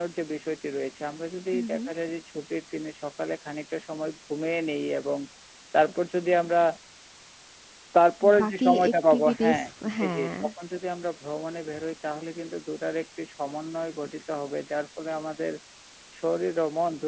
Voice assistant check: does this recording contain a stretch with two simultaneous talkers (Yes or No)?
Yes